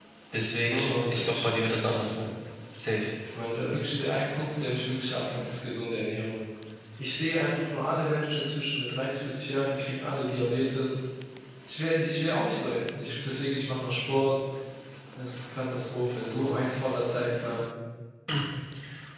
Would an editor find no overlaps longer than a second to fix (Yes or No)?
No